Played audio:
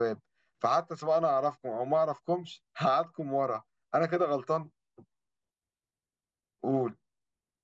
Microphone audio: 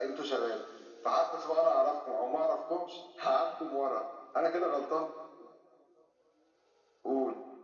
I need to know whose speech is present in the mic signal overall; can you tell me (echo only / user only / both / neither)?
echo only